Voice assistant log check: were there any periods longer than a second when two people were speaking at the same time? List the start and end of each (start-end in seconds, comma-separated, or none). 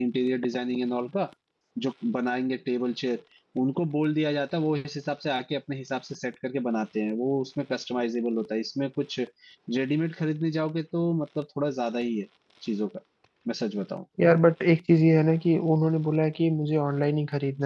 none